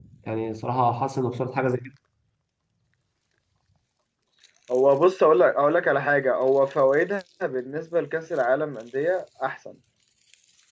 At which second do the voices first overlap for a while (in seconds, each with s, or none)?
none